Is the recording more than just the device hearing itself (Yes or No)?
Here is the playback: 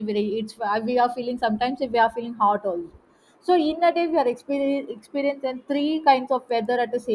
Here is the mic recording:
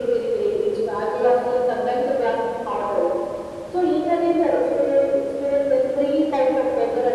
No